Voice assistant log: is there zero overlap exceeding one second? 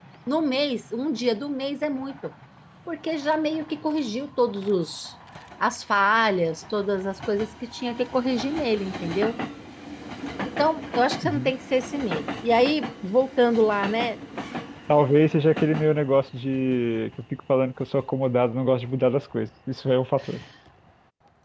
Yes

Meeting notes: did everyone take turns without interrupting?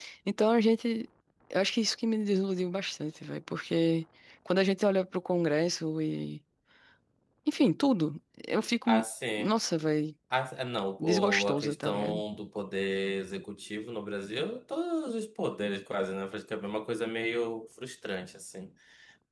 No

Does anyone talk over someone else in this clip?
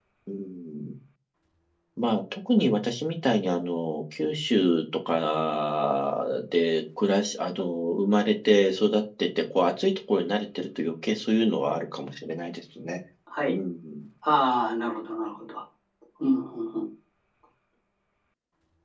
No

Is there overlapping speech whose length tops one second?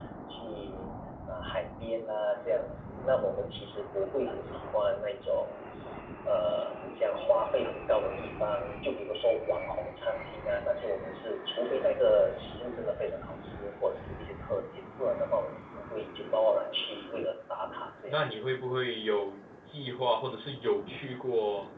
No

